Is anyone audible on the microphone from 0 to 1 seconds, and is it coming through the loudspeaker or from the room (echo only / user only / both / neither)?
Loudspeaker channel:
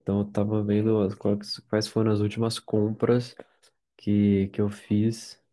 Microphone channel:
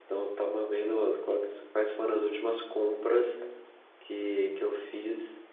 echo only